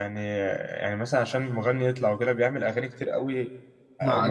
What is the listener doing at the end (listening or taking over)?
taking over